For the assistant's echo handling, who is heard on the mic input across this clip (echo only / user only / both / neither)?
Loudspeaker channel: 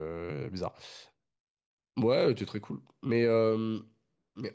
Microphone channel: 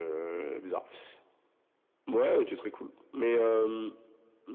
echo only